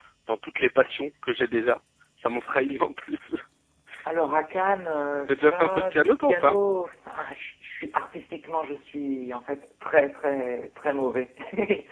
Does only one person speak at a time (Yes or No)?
No